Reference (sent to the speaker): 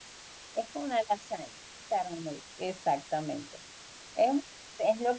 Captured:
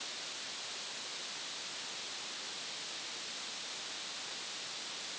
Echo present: No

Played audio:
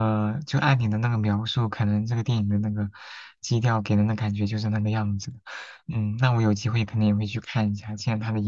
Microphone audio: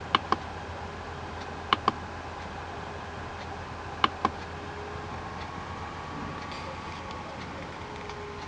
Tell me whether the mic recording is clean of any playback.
Yes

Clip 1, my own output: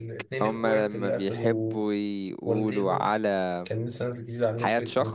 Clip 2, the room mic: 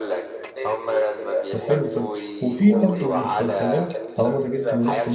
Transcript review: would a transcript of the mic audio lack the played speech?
No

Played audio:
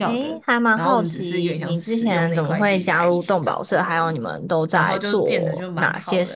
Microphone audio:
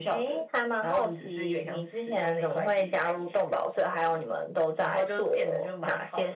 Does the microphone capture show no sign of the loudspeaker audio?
No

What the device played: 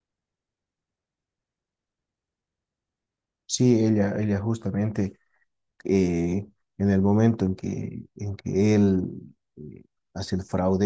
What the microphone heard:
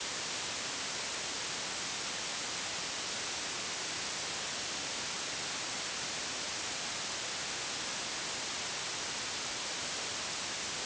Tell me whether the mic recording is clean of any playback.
Yes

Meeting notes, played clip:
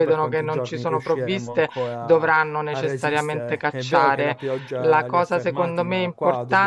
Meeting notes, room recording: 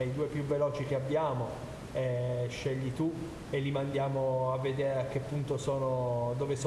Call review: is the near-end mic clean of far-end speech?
Yes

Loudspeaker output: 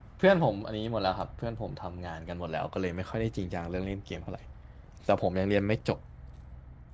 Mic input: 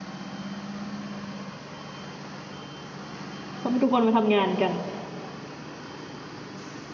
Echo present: No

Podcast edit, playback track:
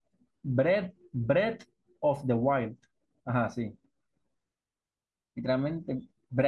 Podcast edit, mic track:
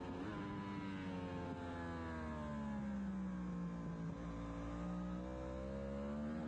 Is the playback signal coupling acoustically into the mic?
No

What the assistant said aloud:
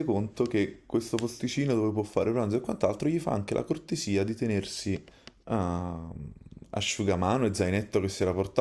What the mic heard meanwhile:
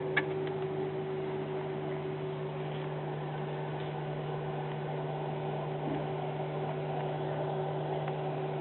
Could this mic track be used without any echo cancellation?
Yes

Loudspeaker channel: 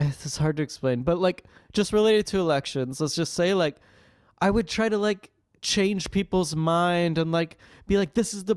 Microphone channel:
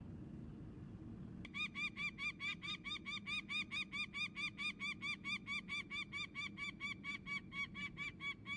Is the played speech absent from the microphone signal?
Yes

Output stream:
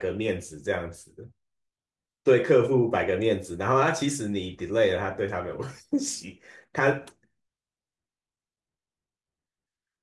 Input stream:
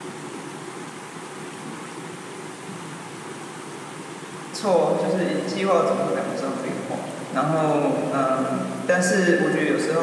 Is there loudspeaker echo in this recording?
No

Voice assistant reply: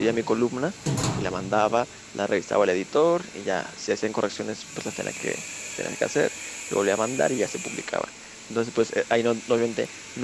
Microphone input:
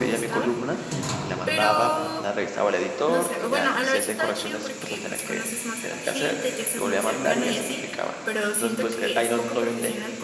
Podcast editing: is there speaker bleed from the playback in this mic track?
Yes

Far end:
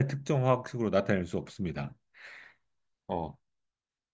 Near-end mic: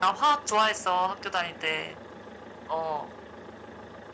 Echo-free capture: Yes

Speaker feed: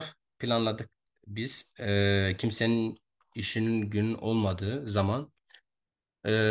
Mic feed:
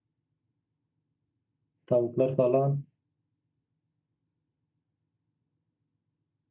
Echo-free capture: Yes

